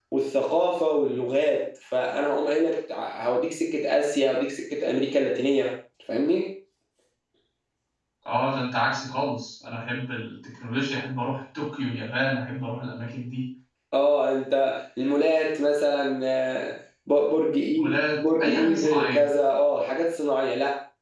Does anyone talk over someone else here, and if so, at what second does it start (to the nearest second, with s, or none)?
18 s